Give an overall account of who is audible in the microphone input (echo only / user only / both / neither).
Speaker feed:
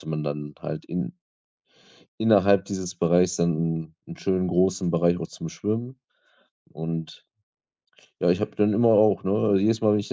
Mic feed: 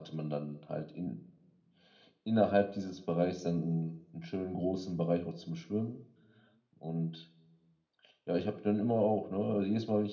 echo only